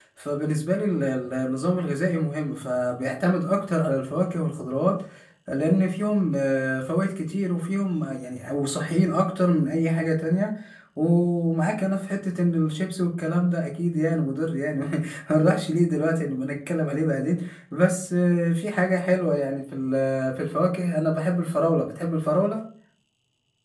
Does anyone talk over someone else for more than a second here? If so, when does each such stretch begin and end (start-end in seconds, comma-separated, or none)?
none